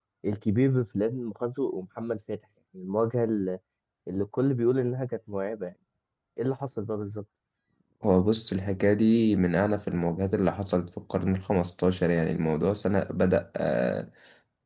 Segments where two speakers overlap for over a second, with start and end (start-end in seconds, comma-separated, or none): none